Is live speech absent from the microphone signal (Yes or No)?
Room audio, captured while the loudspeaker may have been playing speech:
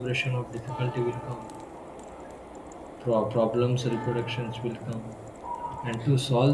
No